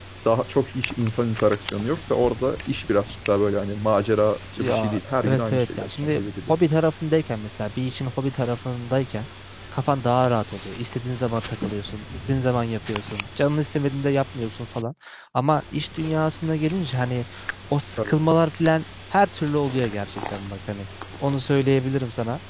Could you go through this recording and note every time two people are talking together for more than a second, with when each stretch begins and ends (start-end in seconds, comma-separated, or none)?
4.6-6.5